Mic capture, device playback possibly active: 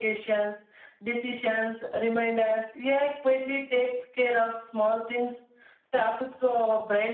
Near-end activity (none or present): none